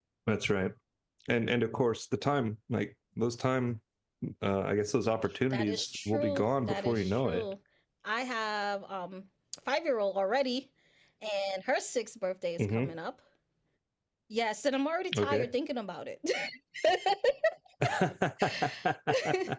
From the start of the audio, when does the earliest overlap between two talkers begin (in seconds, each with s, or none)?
5.5 s